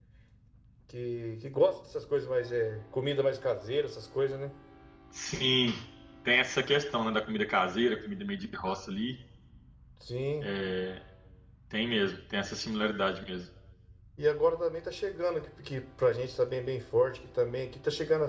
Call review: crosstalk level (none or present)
none